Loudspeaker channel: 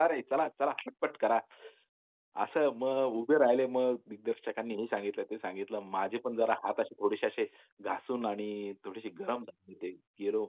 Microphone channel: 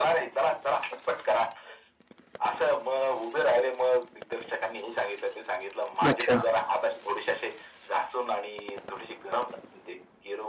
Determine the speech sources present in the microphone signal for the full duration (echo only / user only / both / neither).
both